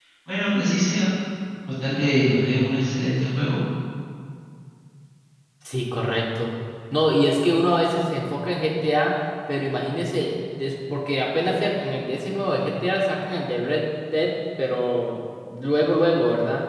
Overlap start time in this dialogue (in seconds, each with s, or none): none